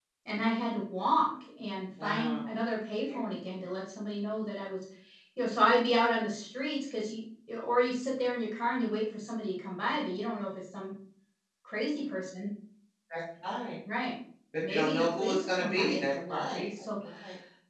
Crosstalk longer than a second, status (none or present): present